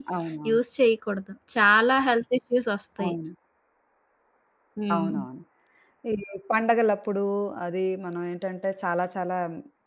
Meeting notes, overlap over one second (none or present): none